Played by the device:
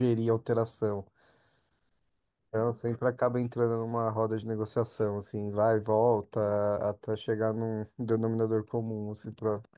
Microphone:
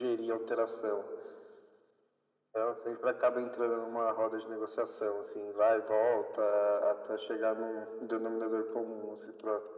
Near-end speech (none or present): none